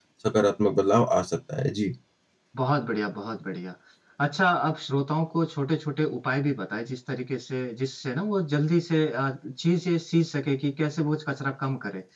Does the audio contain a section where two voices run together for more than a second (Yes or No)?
No